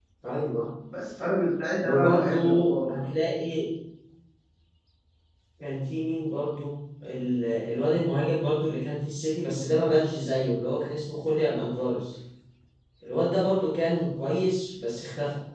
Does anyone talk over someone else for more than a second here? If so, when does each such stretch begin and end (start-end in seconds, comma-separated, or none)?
1.8-3.0